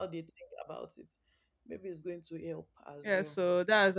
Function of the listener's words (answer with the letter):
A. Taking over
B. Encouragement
A